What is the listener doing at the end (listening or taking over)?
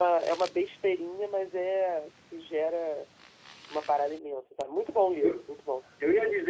taking over